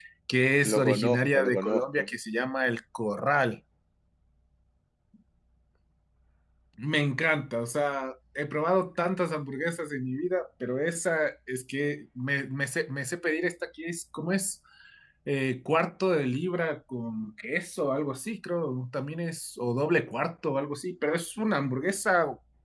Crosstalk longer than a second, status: present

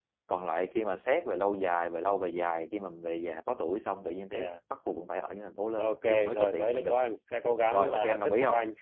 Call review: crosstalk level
present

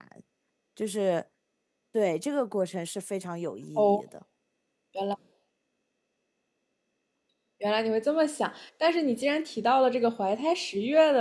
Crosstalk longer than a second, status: none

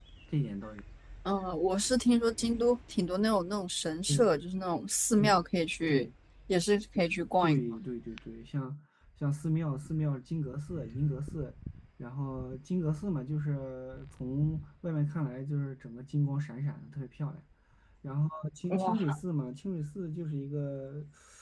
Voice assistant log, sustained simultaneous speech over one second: none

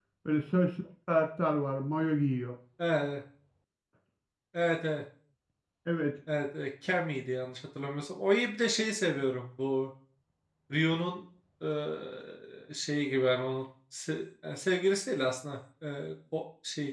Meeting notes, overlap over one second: none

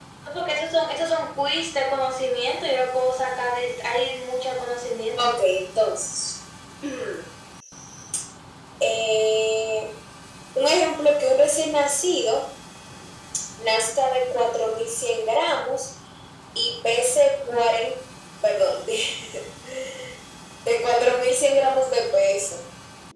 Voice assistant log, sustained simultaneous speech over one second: none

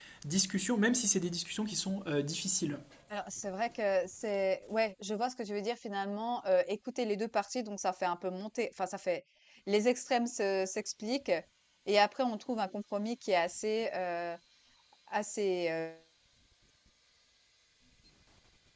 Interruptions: none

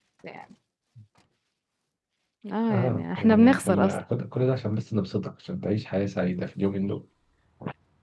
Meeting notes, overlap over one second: present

